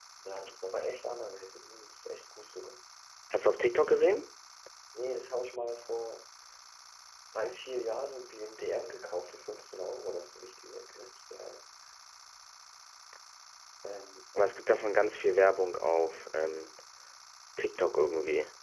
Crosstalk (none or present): none